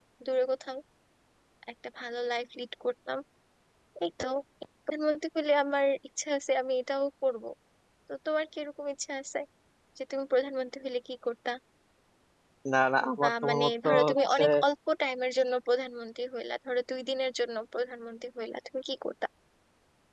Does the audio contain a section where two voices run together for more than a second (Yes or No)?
Yes